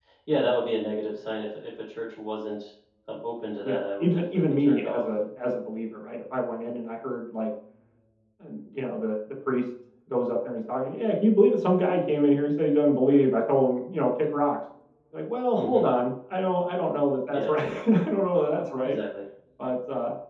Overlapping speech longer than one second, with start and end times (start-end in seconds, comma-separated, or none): 3.6-5.0